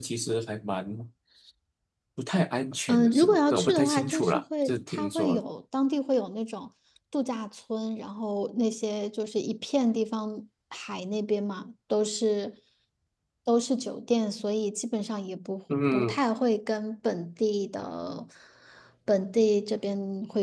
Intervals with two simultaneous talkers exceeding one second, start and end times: 2.9-5.4

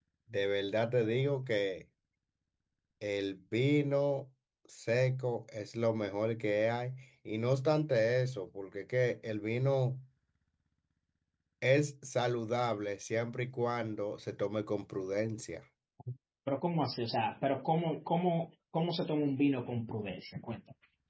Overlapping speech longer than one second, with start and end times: none

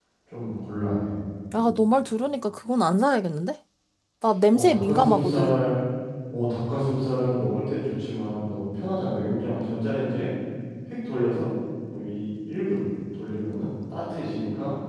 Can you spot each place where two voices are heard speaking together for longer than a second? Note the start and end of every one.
4.5-5.7

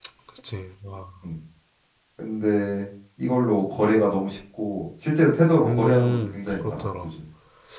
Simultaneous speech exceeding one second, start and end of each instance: 5.6-6.8

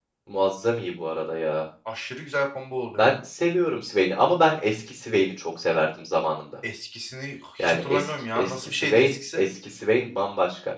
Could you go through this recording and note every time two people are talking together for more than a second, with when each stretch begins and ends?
7.6-9.4

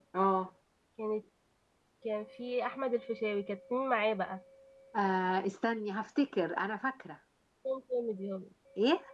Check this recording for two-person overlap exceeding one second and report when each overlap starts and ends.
none

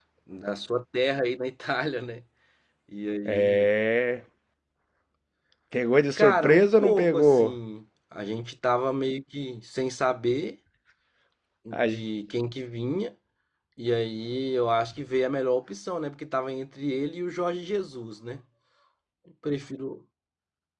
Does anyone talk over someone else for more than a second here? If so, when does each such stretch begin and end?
6.2-7.6

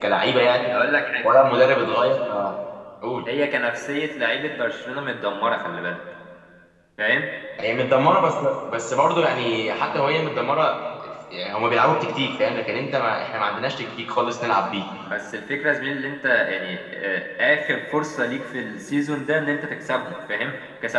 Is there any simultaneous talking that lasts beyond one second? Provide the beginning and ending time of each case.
none

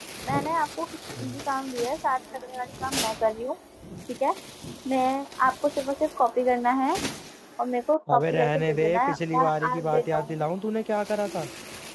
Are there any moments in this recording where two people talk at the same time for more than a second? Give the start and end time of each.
8.1-10.3

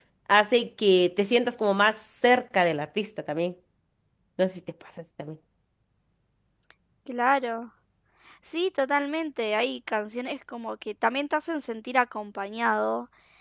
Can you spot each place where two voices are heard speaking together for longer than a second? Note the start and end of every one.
none

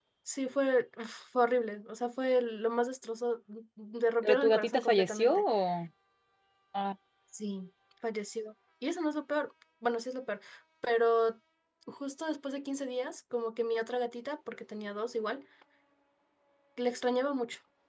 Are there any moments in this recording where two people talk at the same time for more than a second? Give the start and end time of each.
4.2-5.4

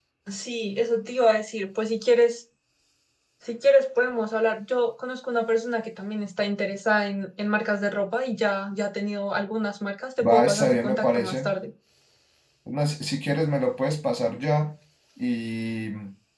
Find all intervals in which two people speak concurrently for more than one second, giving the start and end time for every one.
10.2-11.5

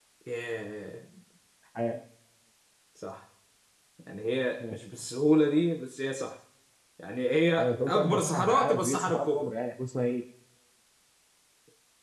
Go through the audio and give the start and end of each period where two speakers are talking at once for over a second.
7.6-9.5

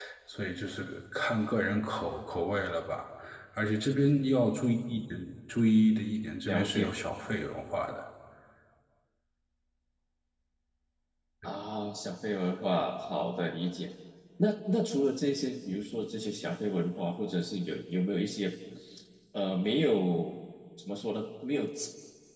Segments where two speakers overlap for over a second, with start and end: none

